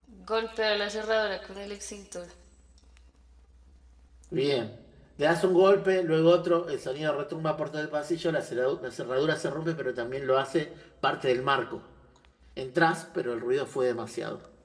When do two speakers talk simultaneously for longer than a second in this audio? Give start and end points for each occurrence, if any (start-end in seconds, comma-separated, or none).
none